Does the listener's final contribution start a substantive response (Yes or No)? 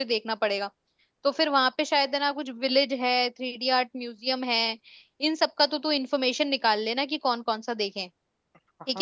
Yes